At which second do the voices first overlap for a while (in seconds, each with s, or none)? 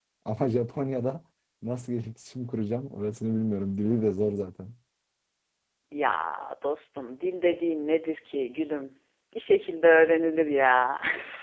none